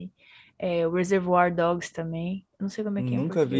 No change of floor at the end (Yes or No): No